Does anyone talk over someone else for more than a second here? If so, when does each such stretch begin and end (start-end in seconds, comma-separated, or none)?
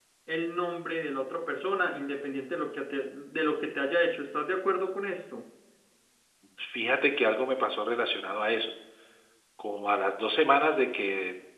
none